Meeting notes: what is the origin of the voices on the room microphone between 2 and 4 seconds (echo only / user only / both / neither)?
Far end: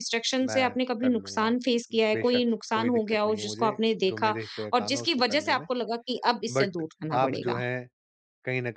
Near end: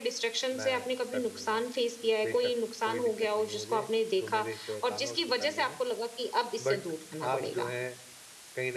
echo only